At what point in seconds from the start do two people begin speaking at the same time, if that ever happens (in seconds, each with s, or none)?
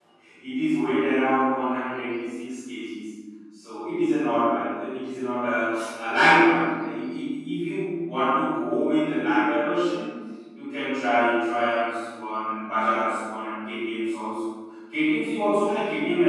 none